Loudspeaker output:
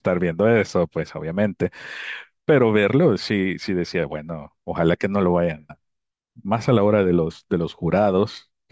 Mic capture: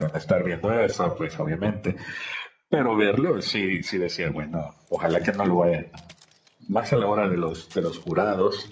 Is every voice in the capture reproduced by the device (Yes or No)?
Yes